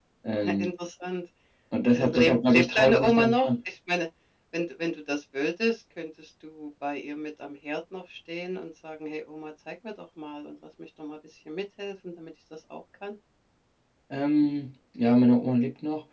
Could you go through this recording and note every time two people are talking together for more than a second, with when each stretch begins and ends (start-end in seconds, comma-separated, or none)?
1.9-3.5